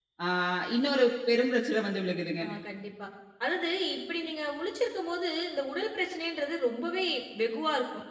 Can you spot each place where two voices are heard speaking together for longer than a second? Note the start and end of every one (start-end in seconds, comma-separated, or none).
none